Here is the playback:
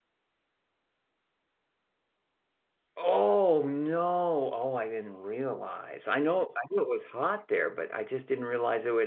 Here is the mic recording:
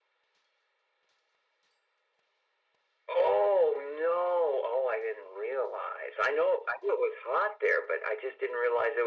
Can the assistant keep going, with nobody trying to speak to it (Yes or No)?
Yes